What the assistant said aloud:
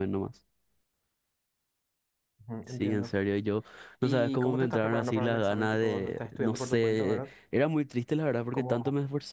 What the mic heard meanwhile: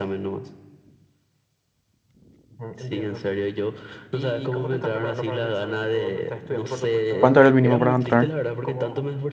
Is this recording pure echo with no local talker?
No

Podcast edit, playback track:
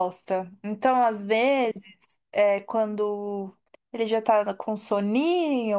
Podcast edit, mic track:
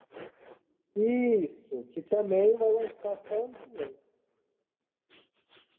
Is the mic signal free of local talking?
No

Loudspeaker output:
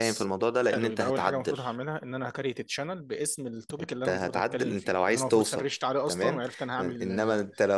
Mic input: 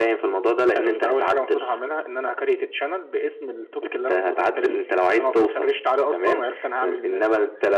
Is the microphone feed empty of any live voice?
Yes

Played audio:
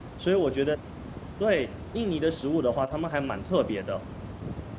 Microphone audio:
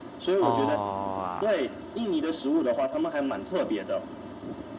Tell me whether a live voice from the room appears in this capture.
Yes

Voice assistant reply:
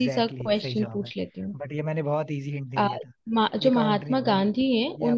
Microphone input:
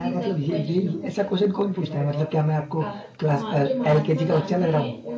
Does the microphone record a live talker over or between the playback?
Yes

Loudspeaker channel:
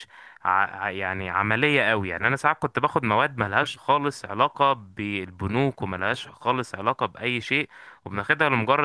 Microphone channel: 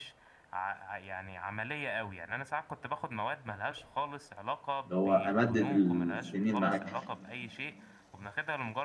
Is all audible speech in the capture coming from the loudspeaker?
No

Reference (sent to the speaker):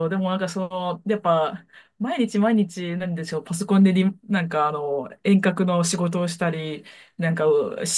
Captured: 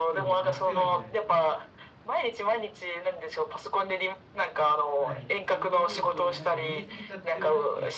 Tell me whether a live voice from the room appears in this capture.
Yes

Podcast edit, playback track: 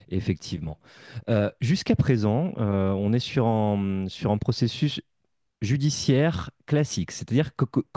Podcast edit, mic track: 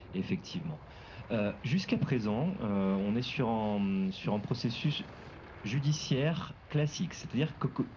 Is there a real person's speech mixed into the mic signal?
No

